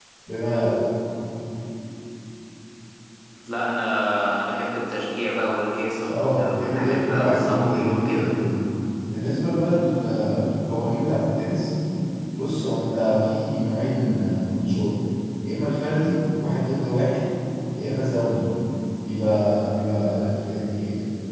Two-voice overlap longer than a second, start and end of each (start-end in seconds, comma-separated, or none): 6.1-8.3